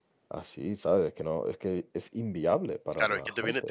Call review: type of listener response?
taking over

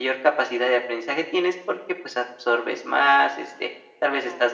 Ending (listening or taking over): listening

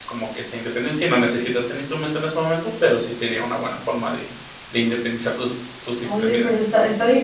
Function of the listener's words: taking over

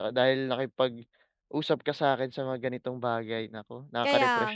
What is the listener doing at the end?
taking over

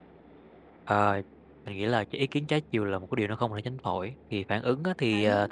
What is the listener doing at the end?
listening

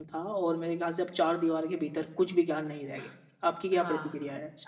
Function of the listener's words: taking over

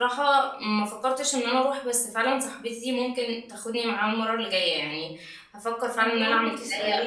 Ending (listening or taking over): taking over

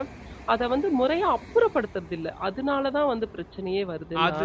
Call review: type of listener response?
taking over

